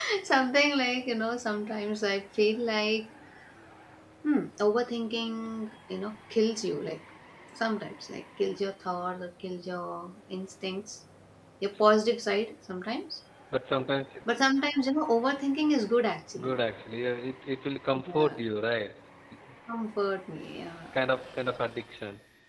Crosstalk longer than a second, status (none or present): none